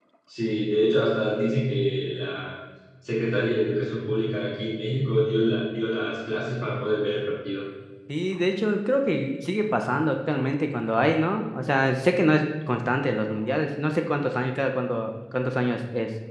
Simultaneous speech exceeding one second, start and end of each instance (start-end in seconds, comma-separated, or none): none